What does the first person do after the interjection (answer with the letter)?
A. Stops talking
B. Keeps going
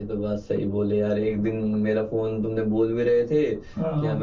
B